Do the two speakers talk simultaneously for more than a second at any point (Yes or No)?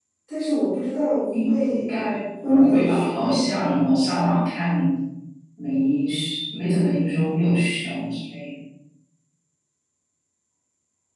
Yes